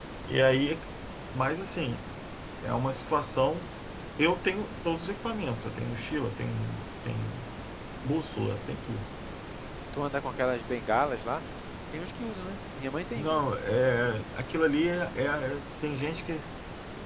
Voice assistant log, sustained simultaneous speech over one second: none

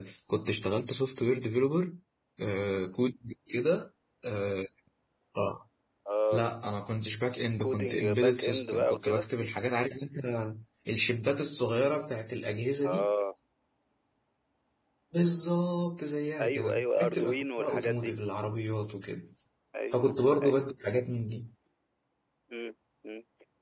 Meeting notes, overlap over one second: present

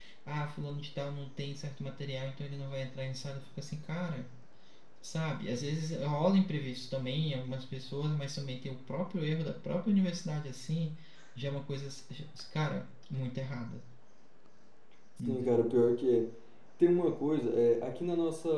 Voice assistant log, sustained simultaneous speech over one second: none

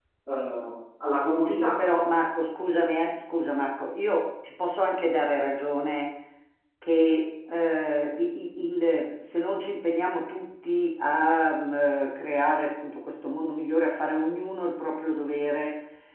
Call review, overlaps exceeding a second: none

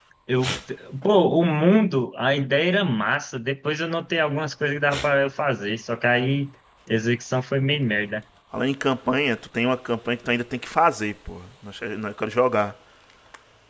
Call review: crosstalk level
none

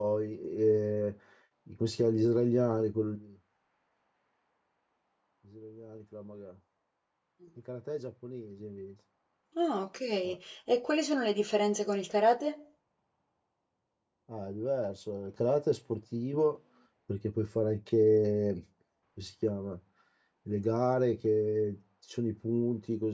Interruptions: none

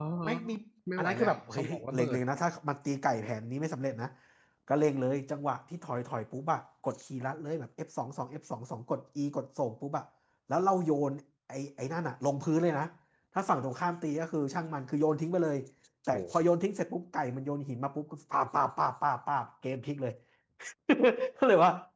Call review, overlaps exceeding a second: present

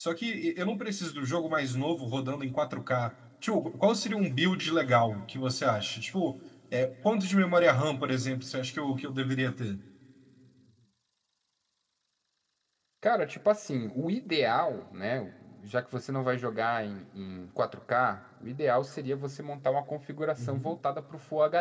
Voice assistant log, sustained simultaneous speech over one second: none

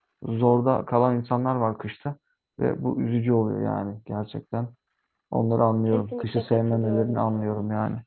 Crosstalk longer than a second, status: present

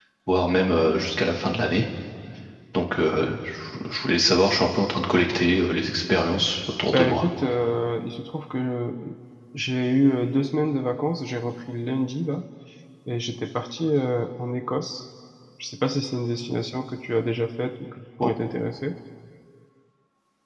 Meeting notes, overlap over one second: none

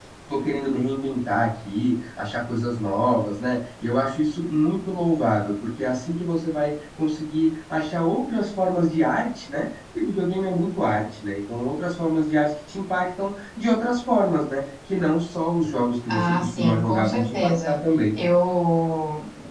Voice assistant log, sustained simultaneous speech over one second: present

